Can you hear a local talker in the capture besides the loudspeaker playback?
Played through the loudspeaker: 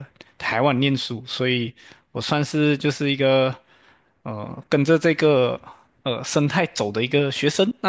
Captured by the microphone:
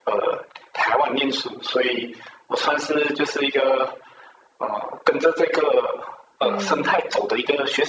Yes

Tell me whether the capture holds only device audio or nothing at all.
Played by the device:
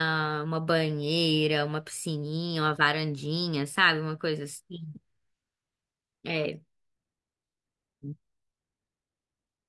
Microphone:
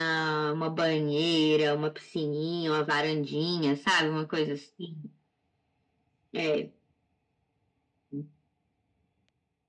Yes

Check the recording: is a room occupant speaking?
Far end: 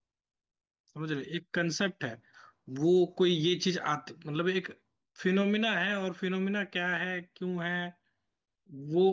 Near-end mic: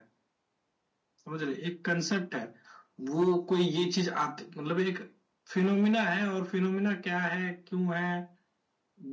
No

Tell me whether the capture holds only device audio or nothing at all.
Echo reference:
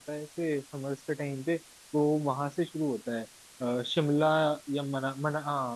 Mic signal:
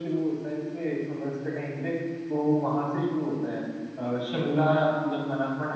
Yes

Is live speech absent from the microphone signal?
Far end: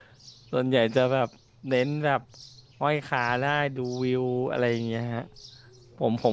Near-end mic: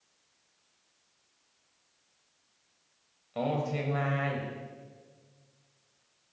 No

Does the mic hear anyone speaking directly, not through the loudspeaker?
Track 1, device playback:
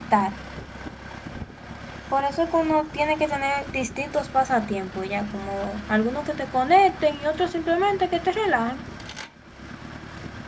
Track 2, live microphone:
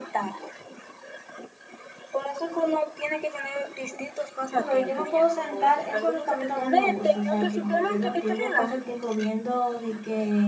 Yes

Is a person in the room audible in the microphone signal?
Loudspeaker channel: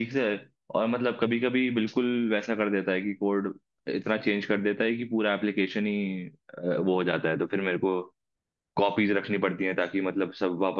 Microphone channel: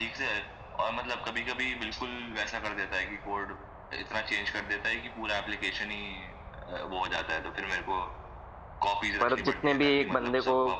Yes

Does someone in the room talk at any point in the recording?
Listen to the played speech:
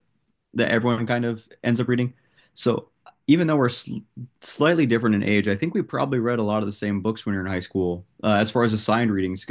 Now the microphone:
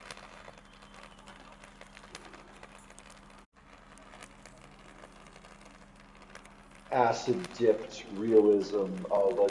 Yes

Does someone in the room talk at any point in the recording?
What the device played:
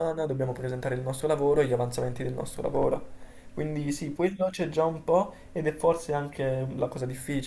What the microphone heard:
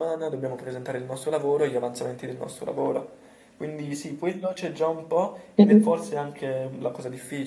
Yes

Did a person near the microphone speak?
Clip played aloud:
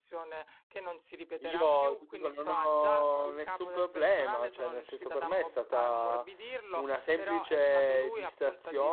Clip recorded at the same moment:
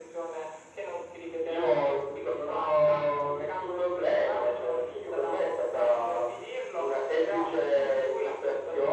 Yes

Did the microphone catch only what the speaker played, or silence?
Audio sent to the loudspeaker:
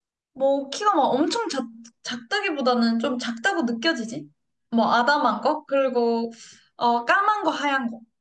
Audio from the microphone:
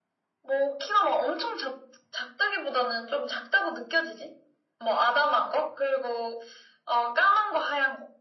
Yes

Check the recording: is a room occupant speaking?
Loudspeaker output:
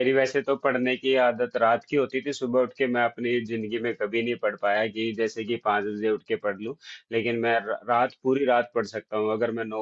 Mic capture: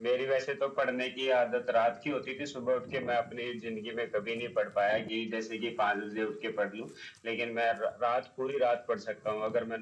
No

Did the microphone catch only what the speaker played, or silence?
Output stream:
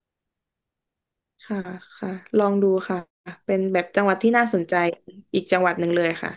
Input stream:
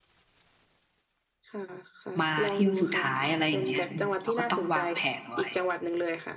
No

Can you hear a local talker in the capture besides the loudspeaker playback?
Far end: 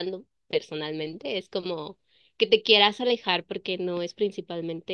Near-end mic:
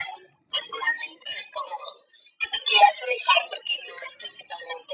No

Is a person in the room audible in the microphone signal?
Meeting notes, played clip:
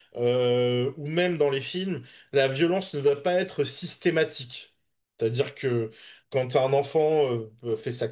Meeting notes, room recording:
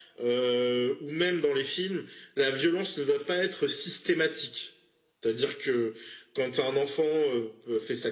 No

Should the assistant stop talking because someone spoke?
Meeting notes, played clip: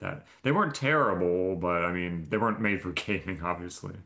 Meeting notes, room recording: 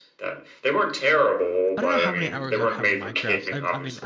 Yes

